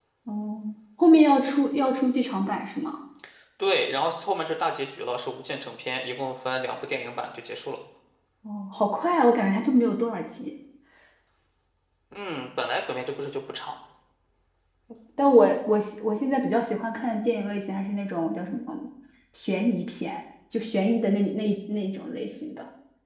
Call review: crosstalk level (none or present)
none